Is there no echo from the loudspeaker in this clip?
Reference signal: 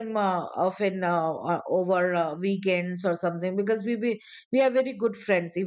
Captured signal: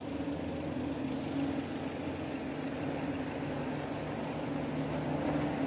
Yes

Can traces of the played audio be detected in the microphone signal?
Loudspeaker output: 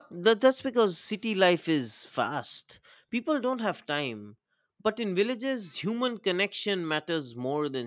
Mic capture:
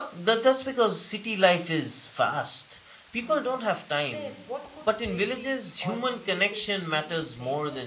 Yes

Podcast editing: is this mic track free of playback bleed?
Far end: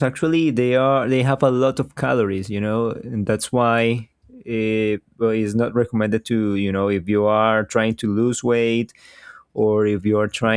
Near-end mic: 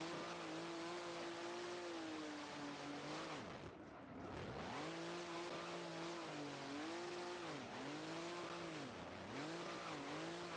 Yes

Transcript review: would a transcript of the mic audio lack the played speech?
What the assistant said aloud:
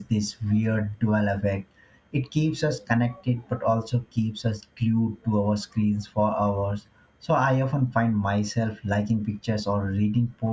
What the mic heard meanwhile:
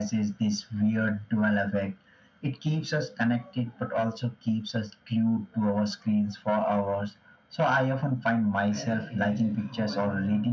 No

